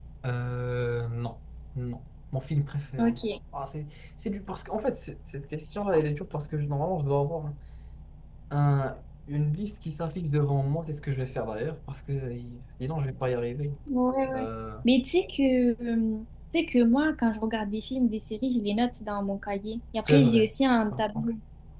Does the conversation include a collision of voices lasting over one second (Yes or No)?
No